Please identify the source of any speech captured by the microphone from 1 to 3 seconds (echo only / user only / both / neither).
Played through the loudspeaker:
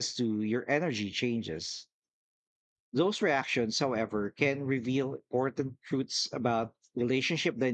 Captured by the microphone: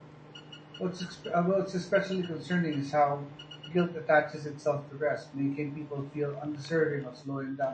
user only